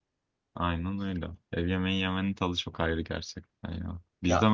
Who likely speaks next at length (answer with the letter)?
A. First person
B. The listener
A